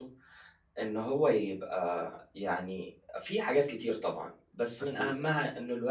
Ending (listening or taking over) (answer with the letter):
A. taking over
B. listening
B